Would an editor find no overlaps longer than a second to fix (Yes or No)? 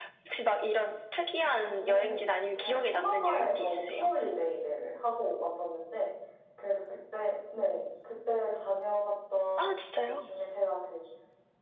No